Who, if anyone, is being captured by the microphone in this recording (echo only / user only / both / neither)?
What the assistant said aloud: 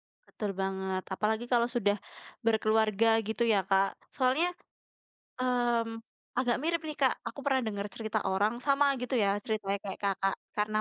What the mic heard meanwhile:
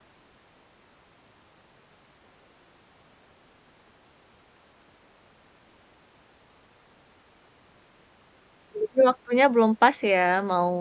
user only